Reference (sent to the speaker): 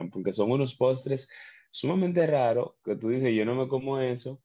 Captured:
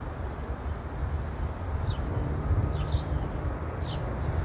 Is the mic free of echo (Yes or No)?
Yes